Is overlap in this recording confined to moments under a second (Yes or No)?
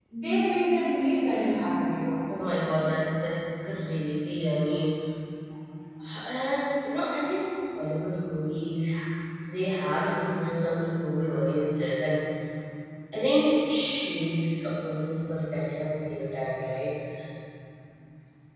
Yes